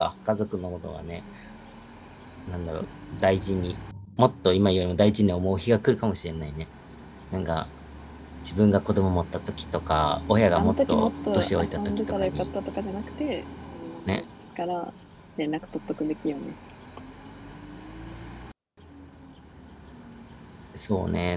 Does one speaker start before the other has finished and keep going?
Yes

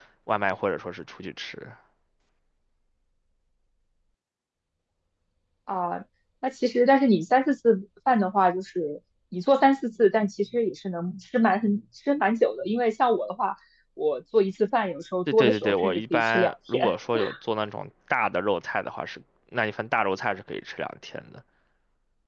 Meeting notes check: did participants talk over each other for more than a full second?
Yes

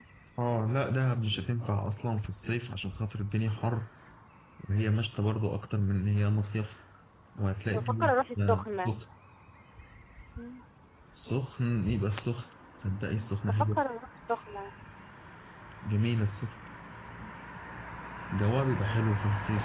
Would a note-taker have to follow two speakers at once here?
Yes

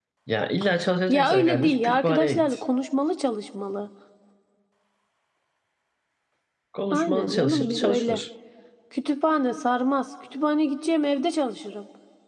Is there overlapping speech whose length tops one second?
Yes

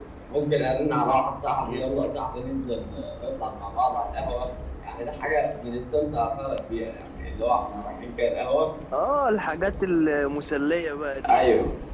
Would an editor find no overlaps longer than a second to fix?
Yes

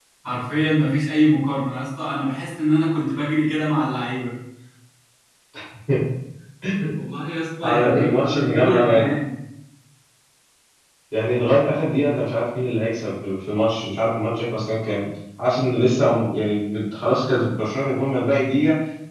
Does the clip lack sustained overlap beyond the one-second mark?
No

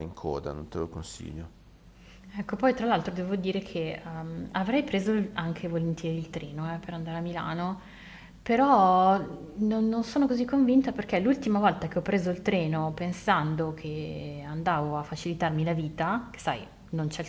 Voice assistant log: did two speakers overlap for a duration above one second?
No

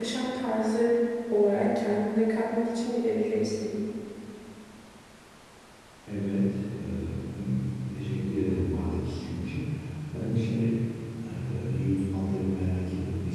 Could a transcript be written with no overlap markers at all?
Yes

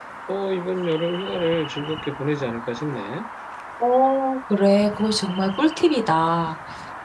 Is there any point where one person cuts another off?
No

